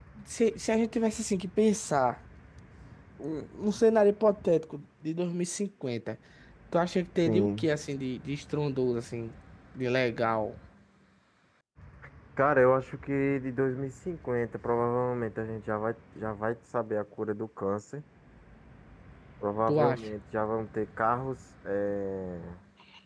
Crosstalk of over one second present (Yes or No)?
No